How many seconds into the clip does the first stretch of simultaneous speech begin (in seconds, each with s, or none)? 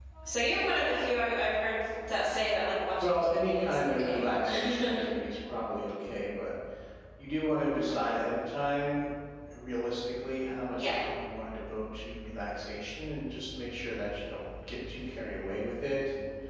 3.0 s